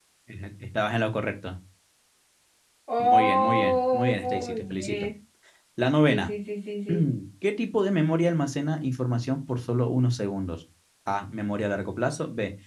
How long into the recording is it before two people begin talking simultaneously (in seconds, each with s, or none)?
3.0 s